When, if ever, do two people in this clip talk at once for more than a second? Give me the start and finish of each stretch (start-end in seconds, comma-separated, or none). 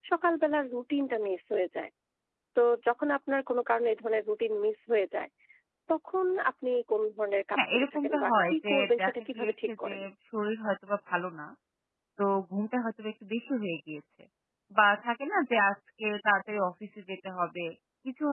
7.6-9.9